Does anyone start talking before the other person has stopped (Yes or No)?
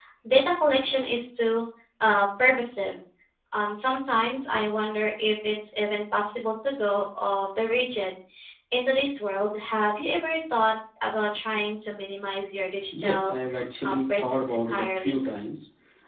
Yes